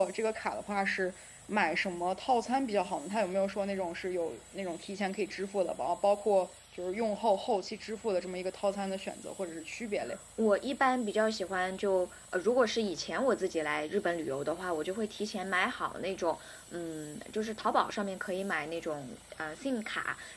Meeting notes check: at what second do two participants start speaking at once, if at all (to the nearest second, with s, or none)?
none